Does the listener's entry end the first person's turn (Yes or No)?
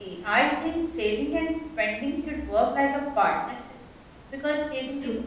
No